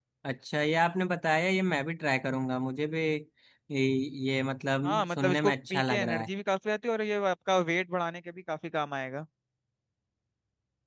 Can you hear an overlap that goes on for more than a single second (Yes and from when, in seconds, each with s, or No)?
Yes, from 4.8 s